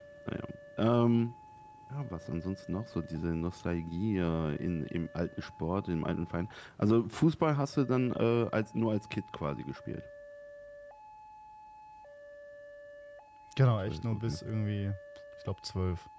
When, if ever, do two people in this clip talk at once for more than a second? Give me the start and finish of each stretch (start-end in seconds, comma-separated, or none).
none